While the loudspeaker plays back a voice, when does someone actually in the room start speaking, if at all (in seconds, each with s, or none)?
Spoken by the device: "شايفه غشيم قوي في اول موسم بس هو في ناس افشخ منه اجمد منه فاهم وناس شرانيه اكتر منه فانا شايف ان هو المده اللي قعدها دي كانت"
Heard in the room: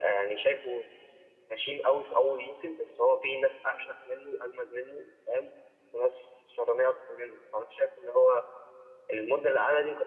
none